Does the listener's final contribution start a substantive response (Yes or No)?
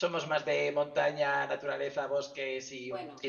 Yes